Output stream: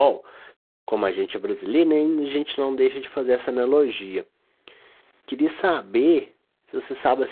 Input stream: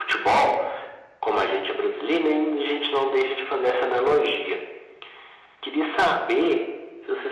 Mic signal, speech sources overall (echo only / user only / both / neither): echo only